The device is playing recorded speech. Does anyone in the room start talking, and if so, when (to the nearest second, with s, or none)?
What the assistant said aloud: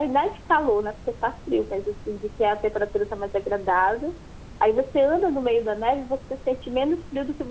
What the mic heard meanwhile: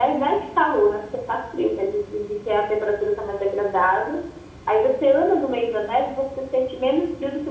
none